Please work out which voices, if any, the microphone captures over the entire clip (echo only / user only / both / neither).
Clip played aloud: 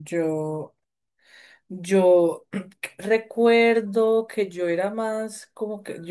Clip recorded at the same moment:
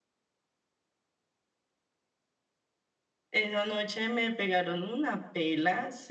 user only